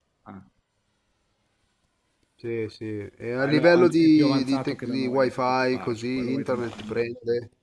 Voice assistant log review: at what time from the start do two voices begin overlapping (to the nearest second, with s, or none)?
3 s